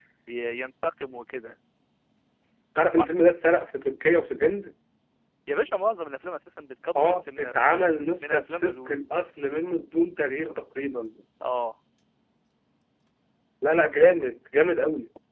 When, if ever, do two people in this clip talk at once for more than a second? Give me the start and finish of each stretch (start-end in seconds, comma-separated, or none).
7.0-8.9